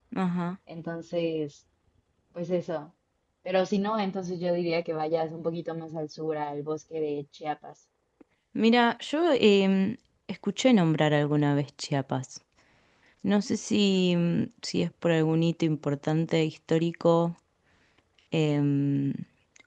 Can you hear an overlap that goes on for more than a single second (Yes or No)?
No